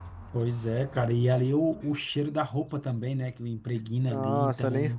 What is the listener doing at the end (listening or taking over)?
taking over